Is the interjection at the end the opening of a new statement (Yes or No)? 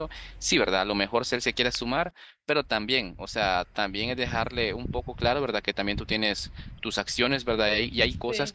No